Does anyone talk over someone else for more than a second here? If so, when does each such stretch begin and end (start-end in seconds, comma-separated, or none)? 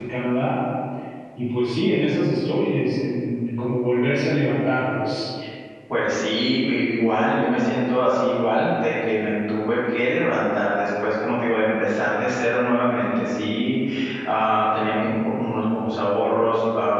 none